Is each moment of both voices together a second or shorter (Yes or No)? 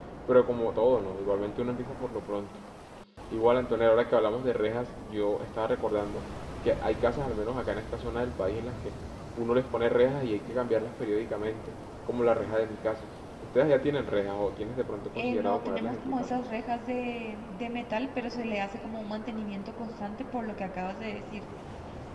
No